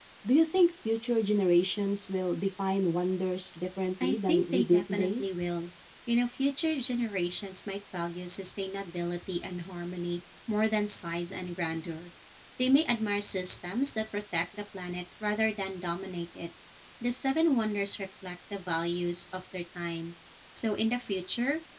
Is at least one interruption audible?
Yes, from 4.0 s

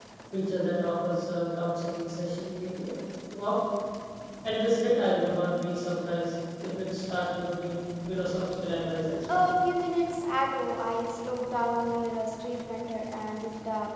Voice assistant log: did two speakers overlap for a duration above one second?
No

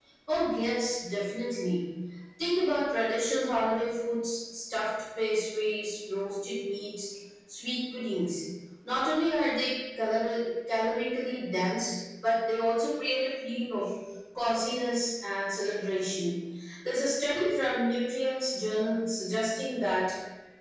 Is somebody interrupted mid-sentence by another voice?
No

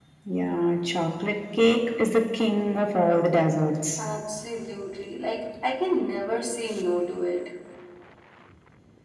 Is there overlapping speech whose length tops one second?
No

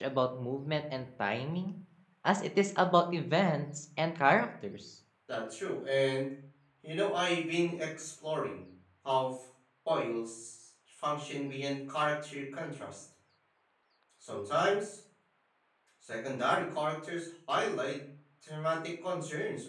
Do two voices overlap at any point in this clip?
No

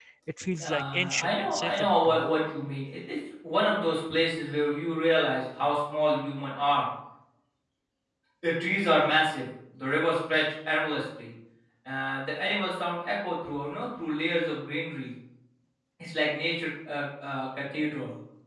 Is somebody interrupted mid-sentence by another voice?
Yes, from 0.6 s

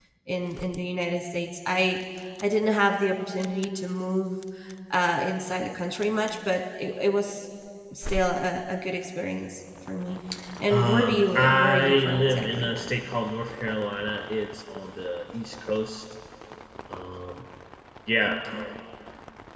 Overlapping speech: Yes, from 10.7 s

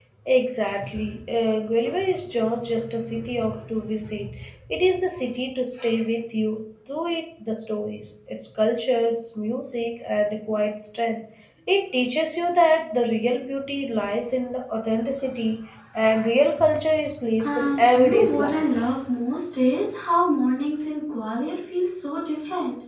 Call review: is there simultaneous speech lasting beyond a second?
Yes, from 17.4 s

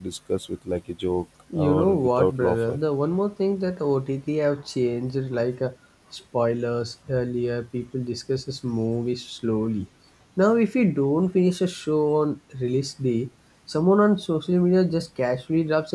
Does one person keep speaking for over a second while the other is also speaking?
Yes, from 1.5 s

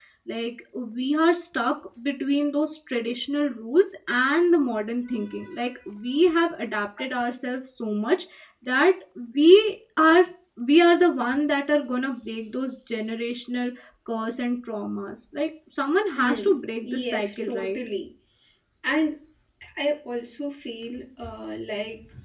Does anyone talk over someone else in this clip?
Yes, from 16.2 s

